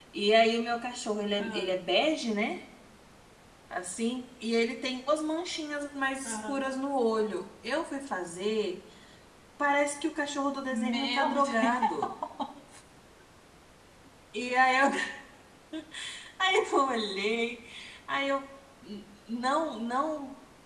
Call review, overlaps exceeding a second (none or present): present